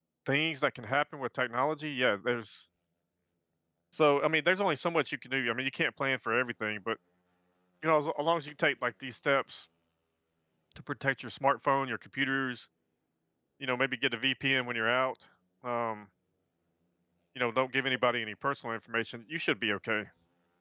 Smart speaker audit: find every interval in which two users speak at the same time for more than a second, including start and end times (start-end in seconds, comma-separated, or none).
none